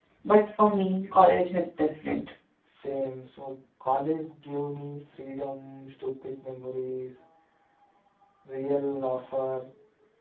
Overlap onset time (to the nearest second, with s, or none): none